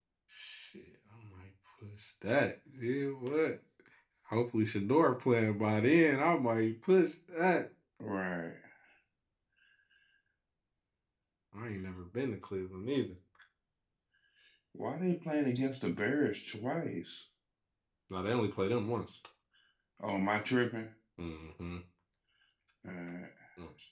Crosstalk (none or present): none